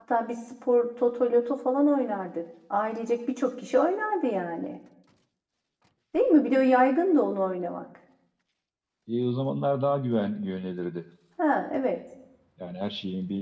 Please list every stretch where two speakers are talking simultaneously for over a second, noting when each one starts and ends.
none

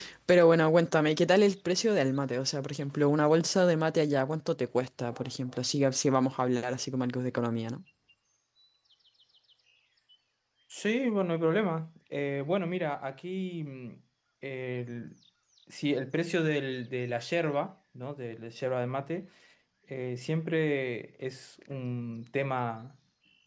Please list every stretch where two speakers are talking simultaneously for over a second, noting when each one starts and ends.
none

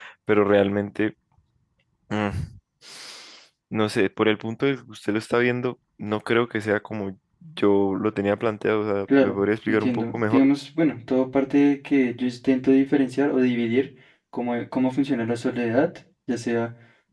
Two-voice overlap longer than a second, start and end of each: 9.2-10.5

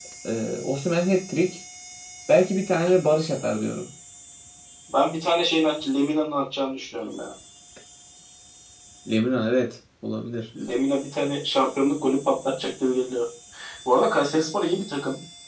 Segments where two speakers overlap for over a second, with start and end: none

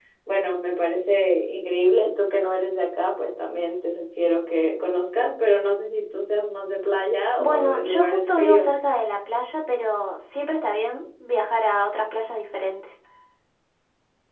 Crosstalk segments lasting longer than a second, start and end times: 7.4-8.7

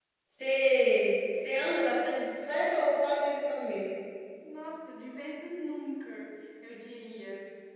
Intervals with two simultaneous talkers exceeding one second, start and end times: none

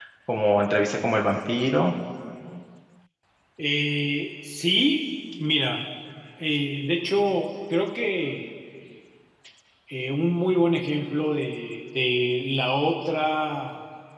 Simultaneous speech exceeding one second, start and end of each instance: none

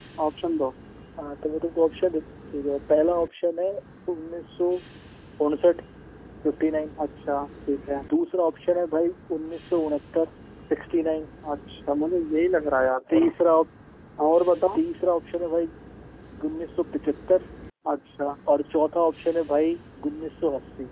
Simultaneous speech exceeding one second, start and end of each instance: none

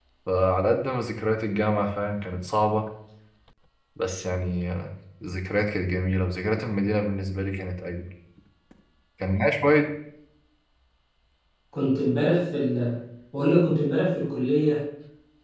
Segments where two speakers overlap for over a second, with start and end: none

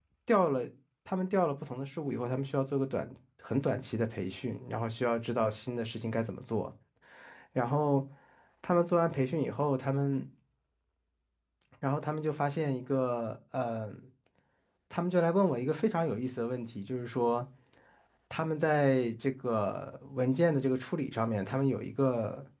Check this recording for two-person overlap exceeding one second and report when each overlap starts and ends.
none

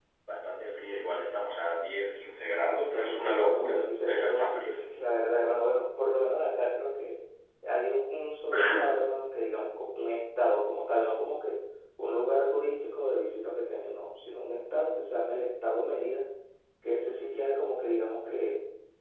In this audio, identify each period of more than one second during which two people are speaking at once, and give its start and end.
2.9-4.8

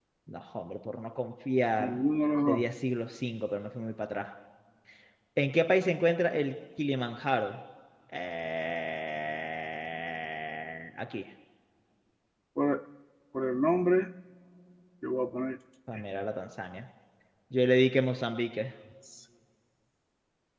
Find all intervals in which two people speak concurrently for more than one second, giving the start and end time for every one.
none

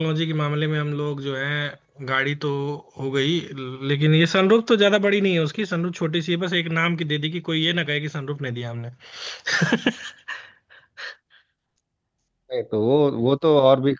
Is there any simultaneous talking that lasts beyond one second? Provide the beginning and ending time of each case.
none

